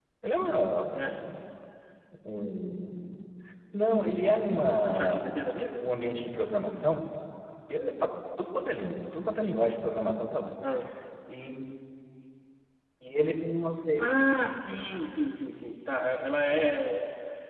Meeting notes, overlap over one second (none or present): none